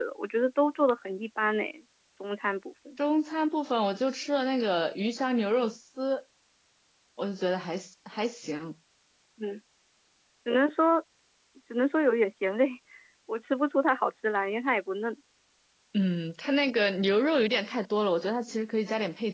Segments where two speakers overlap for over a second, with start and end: none

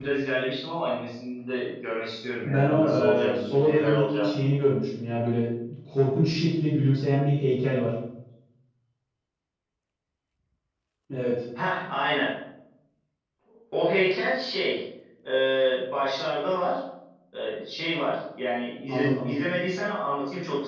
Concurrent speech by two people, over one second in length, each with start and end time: 2.4-4.3

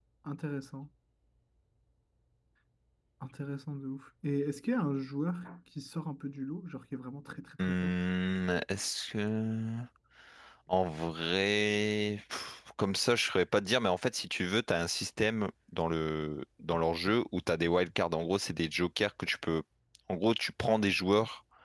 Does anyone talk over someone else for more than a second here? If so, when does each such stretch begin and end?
none

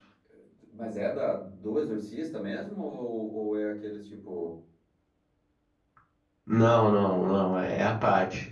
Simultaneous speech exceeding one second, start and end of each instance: none

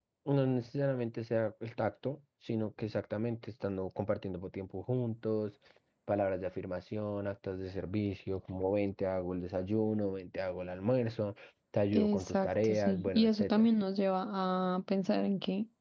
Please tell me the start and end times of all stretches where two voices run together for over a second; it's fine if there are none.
11.9-13.7

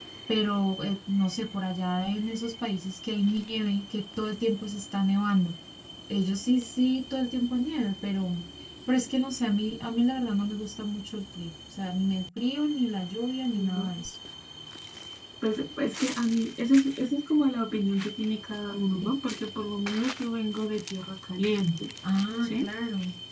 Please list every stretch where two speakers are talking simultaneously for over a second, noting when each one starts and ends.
none

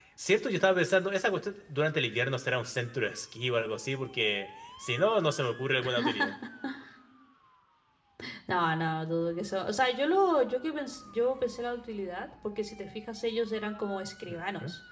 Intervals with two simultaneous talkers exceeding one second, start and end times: none

